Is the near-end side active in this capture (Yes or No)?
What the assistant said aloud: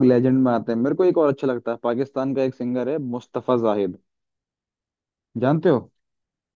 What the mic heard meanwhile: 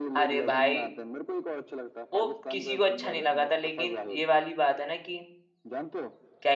Yes